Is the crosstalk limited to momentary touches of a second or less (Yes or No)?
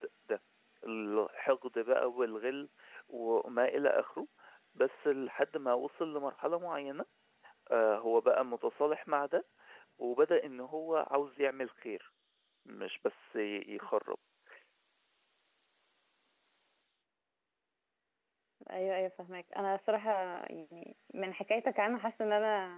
Yes